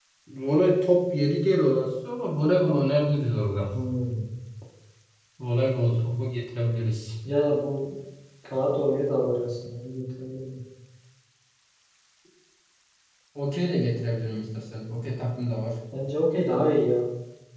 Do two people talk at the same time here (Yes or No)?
No